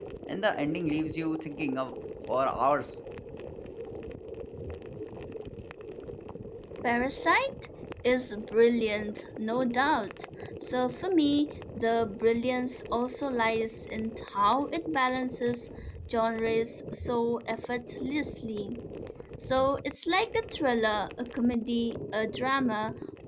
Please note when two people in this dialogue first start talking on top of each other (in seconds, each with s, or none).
none